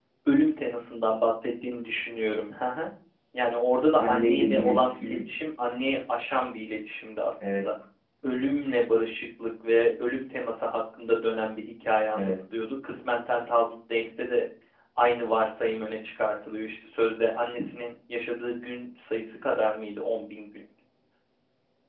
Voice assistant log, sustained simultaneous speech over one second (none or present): present